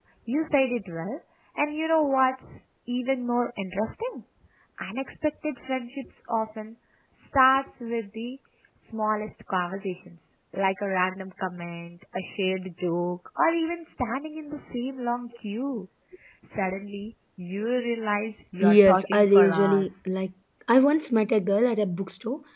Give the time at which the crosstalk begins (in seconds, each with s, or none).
18.6 s